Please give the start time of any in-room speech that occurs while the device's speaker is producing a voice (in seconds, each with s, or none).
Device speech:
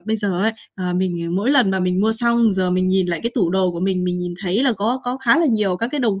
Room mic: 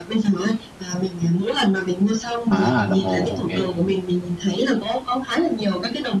2.5 s